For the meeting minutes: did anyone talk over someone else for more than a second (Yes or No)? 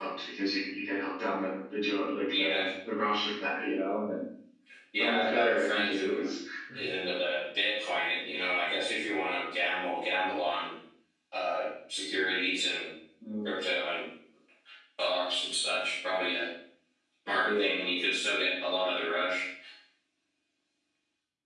Yes